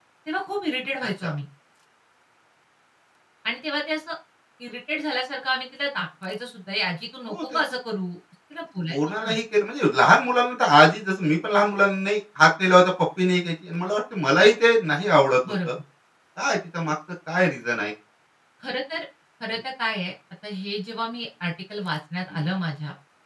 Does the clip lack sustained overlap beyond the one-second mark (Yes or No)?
Yes